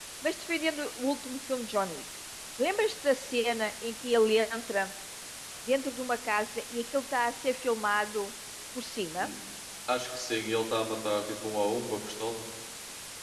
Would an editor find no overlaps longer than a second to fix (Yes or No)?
Yes